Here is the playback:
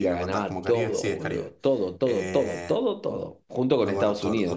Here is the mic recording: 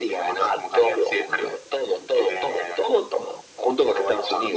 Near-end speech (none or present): none